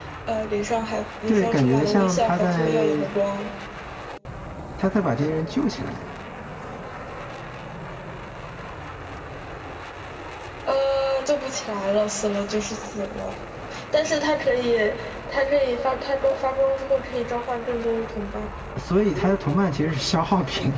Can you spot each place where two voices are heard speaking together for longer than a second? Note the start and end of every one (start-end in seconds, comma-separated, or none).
1.3-3.1